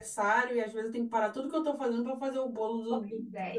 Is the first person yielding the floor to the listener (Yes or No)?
Yes